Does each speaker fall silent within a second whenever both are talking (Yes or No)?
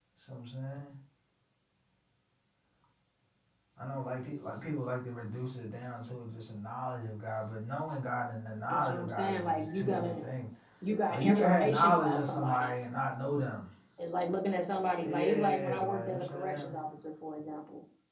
No